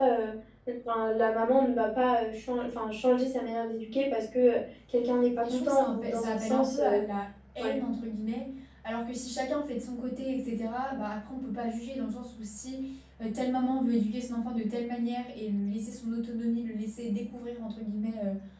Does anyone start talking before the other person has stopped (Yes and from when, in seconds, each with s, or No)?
Yes, from 5.4 s